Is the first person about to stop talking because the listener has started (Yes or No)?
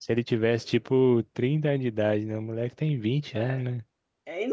Yes